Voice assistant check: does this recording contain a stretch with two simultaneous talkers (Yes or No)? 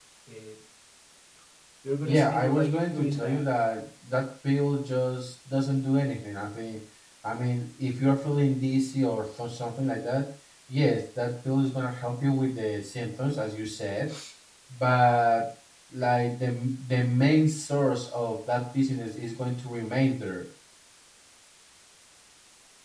Yes